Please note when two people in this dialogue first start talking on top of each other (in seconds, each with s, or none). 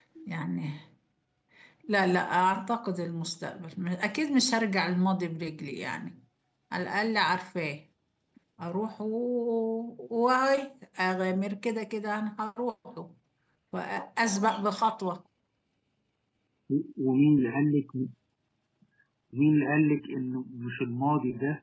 none